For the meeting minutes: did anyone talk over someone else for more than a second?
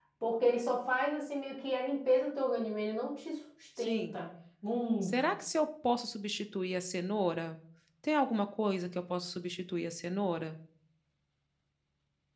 No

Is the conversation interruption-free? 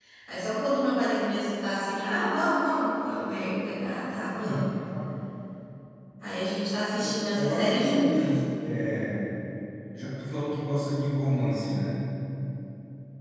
No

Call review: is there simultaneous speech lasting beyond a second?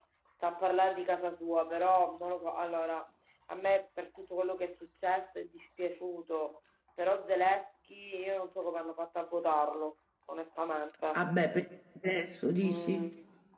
No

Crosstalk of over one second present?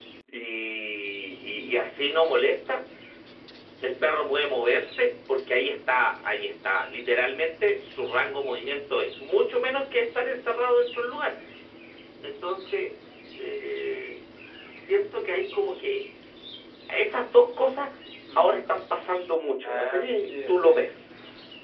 Yes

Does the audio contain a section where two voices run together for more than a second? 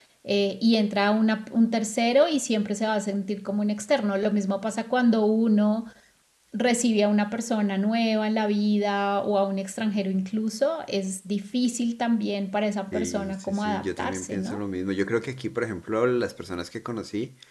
Yes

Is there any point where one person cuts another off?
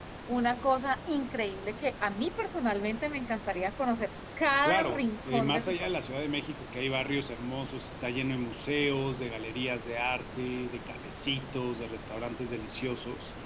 Yes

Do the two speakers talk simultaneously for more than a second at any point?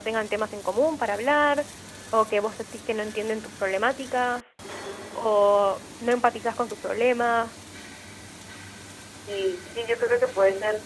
No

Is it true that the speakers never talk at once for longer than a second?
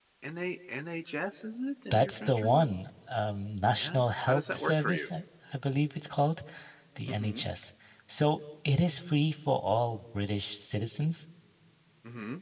No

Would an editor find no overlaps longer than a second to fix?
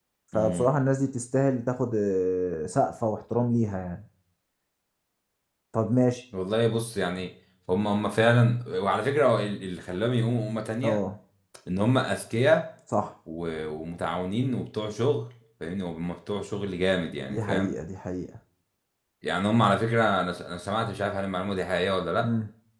Yes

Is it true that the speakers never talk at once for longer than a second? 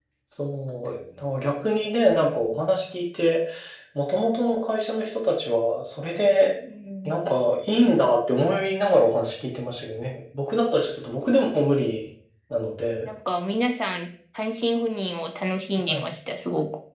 Yes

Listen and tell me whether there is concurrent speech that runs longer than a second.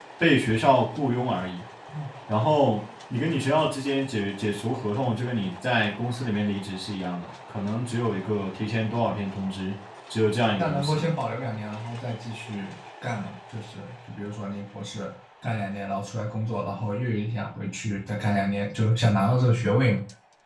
No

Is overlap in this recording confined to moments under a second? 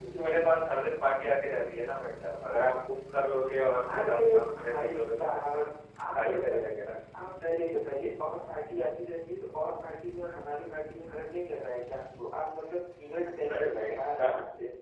No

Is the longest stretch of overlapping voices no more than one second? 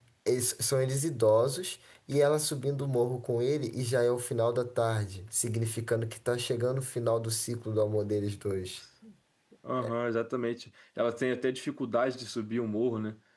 Yes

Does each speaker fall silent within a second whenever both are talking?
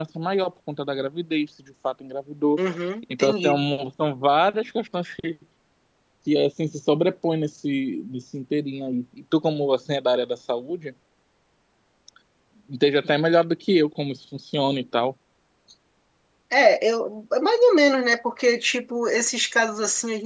Yes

